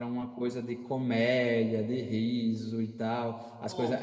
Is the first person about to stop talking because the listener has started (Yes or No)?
No